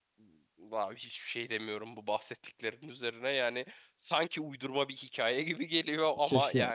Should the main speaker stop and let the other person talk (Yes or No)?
Yes